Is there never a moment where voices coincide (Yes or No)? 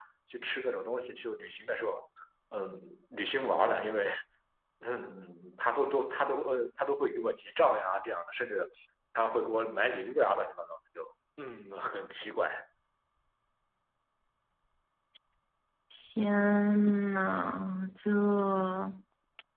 Yes